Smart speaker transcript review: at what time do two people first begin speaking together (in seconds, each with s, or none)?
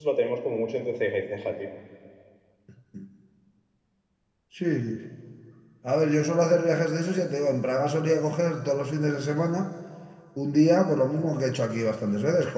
none